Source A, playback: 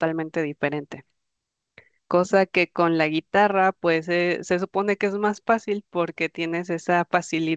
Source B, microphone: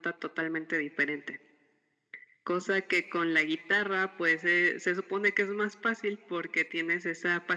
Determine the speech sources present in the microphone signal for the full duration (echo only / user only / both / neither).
echo only